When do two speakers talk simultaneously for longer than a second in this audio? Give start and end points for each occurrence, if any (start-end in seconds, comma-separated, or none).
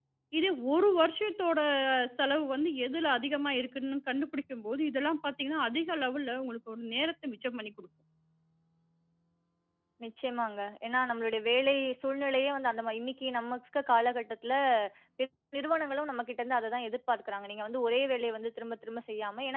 none